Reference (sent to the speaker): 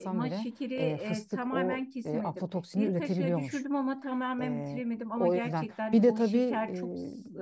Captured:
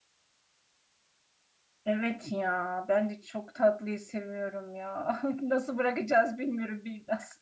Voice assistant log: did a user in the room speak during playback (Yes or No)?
Yes